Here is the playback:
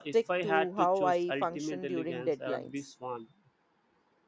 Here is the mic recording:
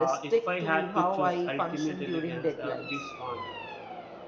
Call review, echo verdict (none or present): present